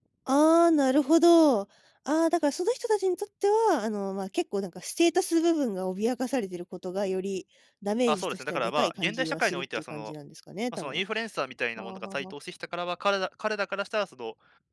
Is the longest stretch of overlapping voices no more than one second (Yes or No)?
No